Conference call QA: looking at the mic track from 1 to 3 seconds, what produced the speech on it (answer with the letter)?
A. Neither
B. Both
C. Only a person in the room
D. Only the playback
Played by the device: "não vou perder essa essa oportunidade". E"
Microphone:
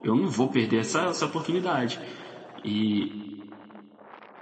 D